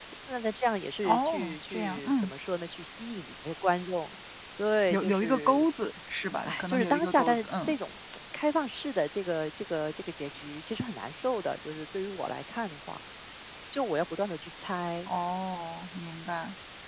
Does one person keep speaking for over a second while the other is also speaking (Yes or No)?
Yes